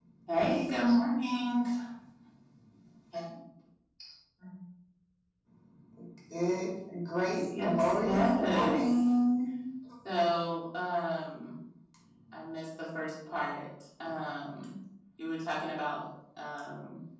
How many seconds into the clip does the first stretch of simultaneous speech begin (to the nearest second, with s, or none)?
7 s